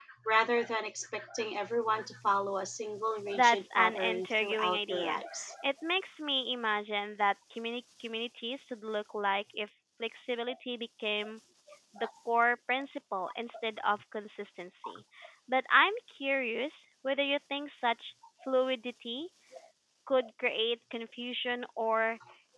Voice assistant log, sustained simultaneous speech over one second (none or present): present